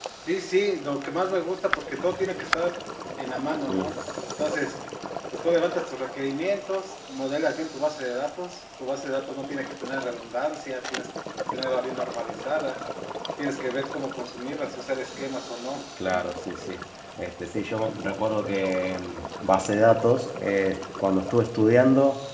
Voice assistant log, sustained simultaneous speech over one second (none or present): none